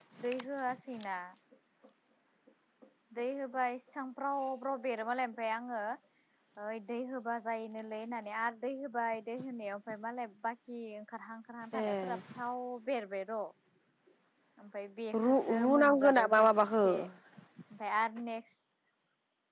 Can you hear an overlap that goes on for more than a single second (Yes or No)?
Yes